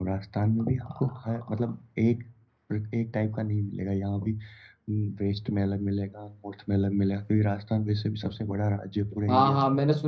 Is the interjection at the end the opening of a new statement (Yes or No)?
Yes